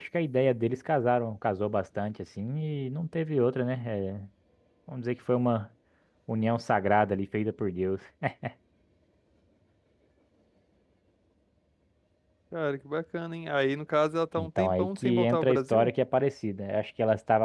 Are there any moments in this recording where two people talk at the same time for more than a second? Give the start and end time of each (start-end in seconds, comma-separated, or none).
14.4-15.9